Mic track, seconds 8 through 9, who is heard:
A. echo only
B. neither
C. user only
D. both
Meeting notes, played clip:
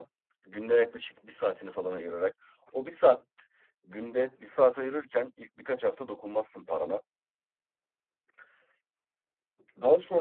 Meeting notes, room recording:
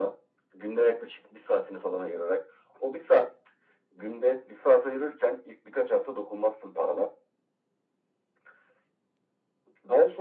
B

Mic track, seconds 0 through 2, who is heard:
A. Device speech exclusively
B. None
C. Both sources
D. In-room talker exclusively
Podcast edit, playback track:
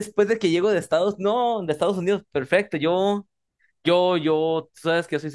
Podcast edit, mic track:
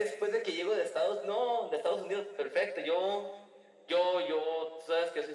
A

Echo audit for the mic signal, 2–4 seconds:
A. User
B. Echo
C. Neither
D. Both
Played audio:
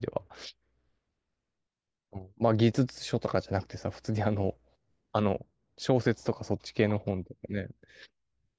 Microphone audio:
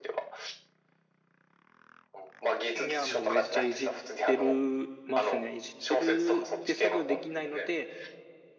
D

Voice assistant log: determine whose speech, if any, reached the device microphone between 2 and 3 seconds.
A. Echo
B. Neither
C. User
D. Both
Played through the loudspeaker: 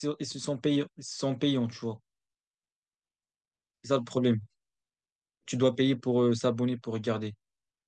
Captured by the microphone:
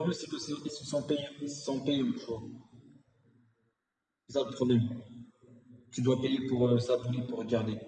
A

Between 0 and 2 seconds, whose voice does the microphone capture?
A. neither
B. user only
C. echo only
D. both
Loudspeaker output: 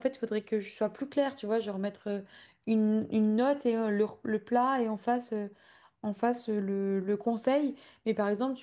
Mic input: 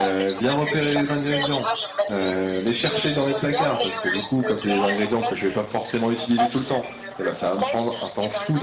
D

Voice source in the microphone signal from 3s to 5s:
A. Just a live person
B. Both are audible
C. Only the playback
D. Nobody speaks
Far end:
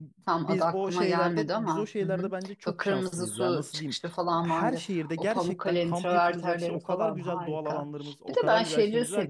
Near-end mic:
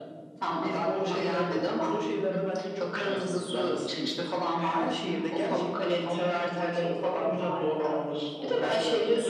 C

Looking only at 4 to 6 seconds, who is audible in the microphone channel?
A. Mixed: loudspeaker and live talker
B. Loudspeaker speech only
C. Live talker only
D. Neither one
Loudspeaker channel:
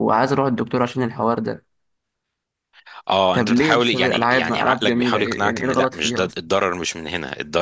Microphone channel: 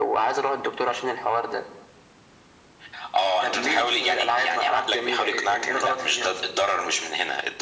B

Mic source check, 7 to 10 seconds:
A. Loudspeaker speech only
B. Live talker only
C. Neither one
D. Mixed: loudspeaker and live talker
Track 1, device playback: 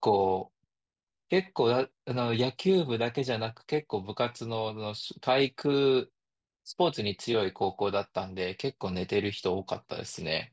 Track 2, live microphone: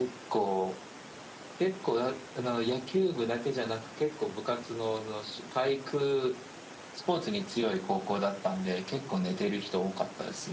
A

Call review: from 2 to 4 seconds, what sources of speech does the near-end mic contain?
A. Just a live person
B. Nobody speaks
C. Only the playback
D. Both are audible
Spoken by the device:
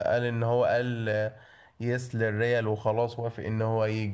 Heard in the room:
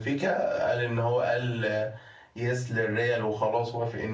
C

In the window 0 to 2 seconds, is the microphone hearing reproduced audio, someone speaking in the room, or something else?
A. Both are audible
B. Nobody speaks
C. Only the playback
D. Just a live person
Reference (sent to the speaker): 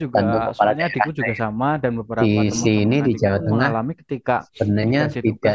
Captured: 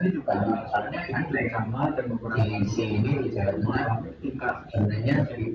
C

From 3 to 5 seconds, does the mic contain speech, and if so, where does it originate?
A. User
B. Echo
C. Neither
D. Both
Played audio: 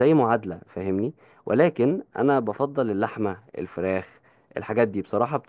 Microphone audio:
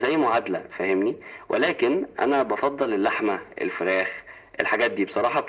B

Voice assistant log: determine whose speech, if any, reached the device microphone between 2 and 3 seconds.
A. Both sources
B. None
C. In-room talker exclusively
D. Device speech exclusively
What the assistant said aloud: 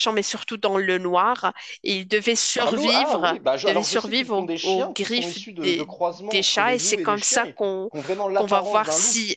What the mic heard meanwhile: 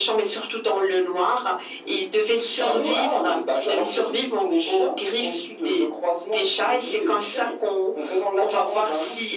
D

